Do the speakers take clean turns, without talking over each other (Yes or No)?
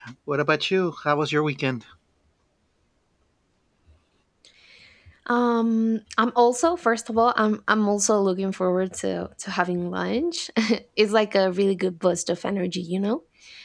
Yes